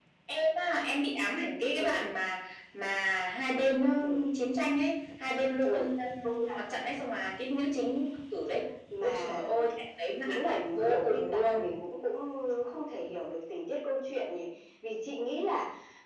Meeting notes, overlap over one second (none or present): present